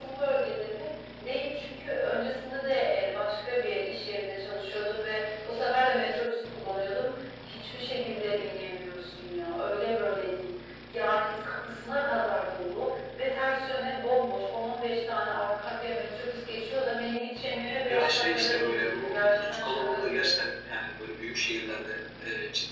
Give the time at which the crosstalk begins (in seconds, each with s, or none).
17.9 s